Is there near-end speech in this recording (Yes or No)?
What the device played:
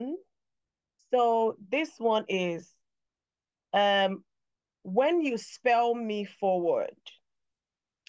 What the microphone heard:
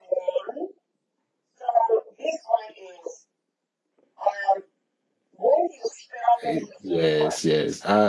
Yes